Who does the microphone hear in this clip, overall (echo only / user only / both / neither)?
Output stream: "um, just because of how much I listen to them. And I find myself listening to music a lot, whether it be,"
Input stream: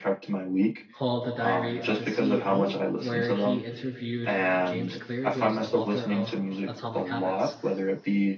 both